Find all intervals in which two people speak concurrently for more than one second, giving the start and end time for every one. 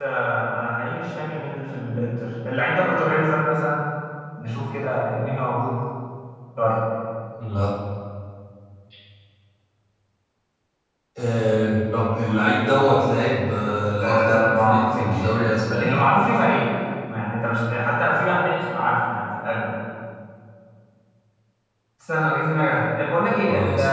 14.0-15.9

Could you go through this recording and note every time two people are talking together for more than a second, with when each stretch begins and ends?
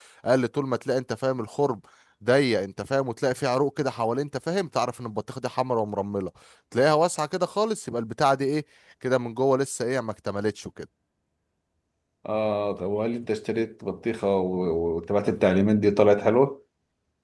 none

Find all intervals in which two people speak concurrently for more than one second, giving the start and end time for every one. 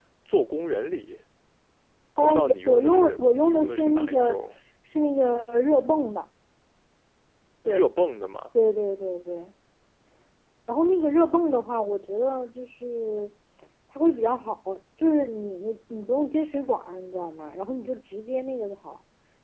2.2-4.4

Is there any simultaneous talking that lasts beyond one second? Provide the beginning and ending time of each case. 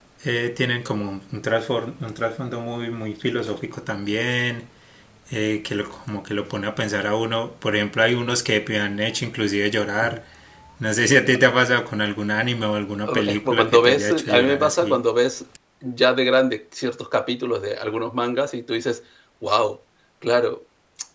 13.2-15.0

